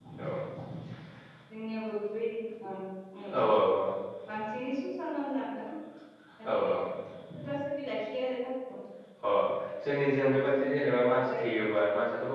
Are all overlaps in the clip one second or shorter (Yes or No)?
No